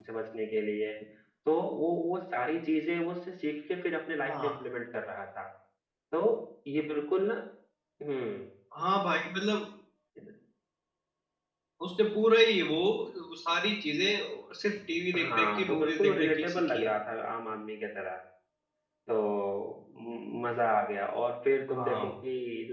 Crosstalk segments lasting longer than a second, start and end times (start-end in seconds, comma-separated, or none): 15.1-16.9